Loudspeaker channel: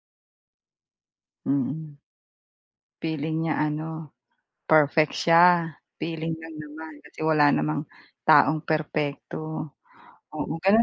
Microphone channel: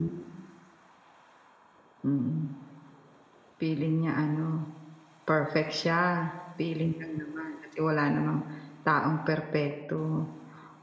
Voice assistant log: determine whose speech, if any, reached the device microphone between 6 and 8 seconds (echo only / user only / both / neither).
echo only